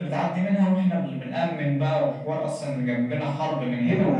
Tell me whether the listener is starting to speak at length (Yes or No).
Yes